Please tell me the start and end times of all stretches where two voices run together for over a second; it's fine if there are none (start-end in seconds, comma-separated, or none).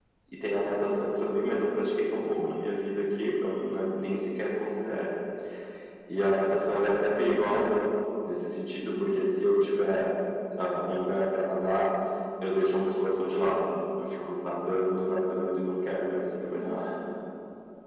none